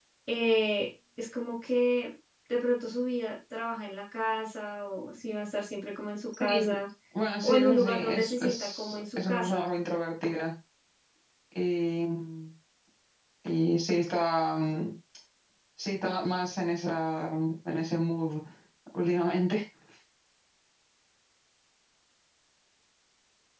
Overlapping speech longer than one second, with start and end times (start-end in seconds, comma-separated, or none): 7.4-9.6